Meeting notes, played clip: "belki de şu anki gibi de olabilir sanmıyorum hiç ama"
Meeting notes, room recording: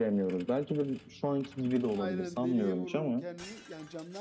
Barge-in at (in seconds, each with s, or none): 2.0 s